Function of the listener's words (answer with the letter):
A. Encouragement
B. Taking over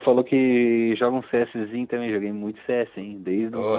B